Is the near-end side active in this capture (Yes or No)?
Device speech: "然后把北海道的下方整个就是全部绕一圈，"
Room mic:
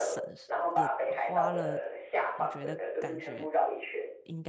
Yes